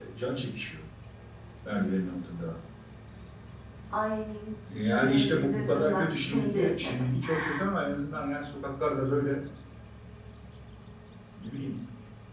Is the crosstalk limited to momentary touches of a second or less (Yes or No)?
No